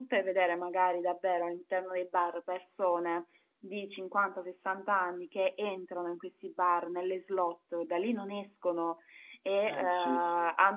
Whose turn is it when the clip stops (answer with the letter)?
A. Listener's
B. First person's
B